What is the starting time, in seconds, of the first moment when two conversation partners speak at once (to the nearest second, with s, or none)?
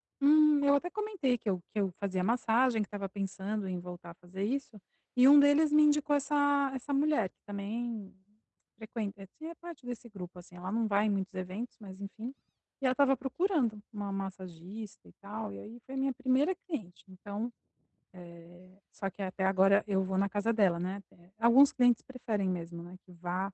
none